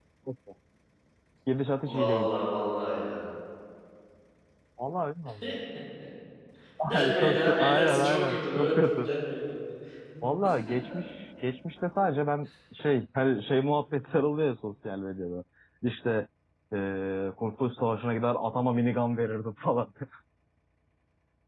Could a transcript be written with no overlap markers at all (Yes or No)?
No